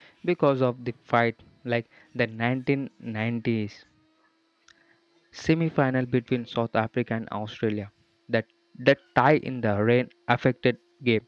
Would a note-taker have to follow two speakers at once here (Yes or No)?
No